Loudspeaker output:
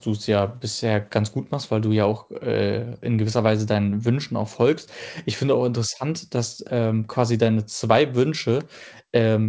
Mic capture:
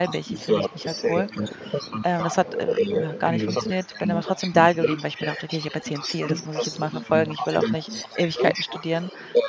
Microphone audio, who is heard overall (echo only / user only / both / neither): both